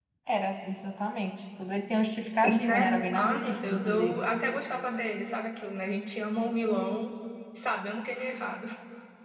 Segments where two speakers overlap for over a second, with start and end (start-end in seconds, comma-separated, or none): 2.4-4.2